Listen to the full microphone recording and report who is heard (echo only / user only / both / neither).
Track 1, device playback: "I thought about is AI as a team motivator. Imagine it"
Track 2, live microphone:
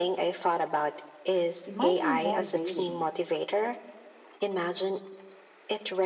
both